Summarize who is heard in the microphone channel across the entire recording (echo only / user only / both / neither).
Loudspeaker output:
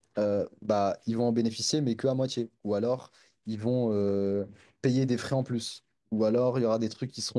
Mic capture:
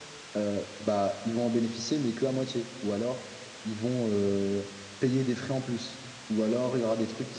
echo only